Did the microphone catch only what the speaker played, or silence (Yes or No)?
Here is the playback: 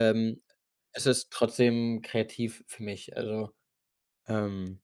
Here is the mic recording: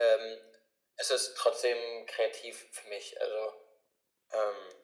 Yes